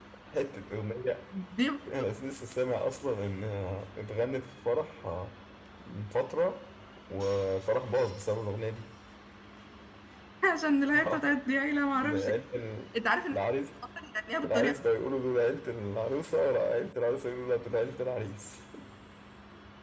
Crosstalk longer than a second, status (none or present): none